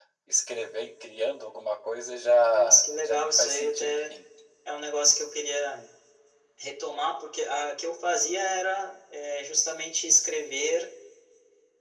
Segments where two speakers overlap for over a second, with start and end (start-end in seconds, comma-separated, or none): 2.4-4.1